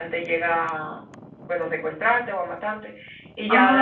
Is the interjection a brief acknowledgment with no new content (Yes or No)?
Yes